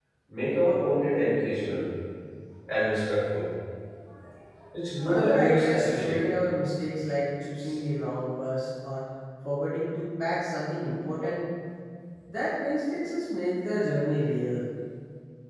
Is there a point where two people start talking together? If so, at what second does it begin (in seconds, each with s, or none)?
5.0 s